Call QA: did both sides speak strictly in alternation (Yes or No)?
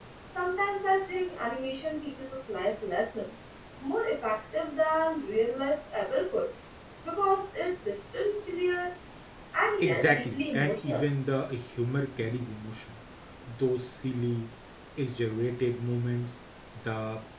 No